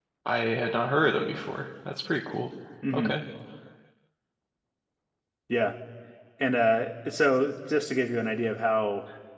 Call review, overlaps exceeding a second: none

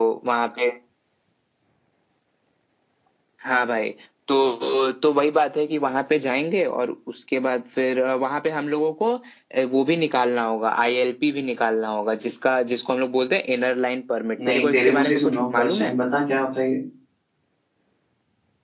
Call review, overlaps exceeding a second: present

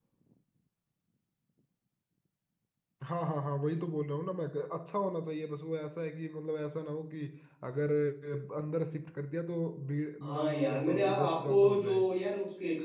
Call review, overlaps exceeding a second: present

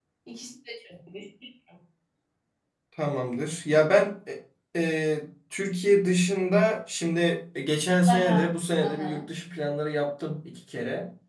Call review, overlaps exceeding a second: none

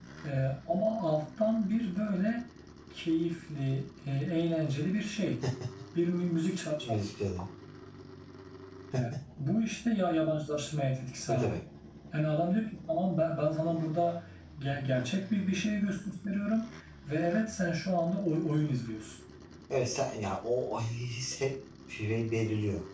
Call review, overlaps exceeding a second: none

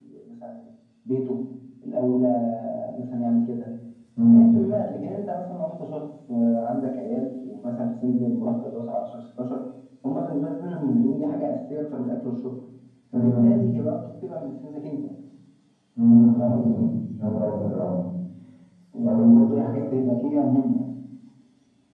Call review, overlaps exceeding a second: none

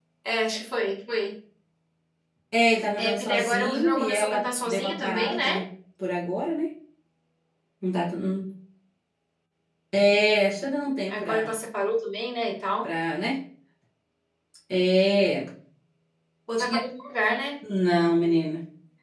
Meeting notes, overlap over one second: present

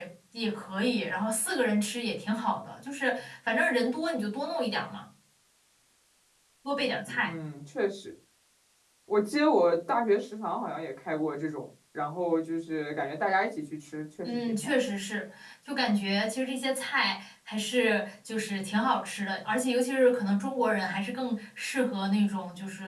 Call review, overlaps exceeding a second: none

